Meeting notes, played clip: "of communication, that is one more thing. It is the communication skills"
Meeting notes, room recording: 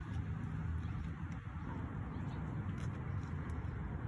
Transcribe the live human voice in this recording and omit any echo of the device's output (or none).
none